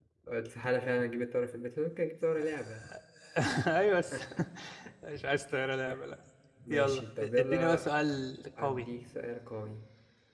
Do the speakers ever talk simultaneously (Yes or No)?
Yes